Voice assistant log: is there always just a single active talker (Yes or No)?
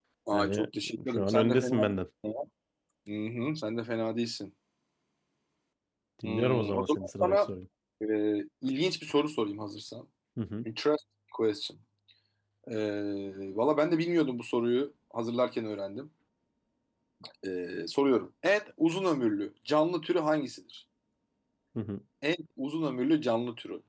No